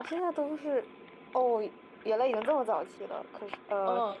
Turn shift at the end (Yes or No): Yes